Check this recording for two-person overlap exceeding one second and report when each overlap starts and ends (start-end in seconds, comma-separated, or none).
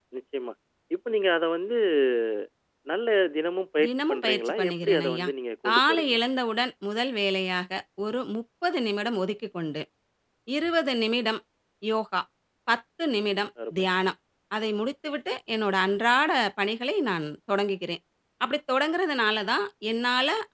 3.9-5.3